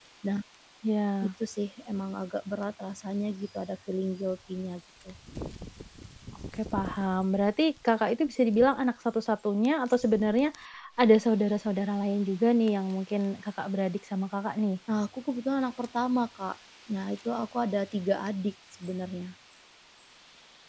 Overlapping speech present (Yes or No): No